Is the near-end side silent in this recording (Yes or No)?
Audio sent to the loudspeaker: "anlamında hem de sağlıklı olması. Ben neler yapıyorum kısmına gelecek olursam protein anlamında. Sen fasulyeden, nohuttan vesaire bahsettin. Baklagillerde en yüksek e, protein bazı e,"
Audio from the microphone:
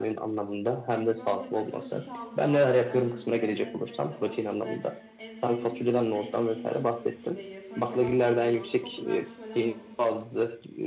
No